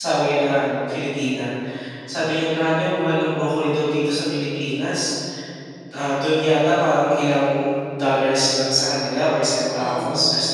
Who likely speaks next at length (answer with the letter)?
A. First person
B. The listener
A